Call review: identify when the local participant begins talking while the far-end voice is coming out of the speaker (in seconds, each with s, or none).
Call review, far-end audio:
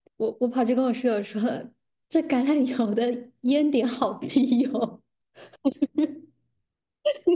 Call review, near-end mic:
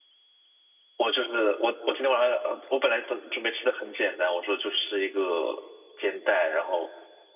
1.0 s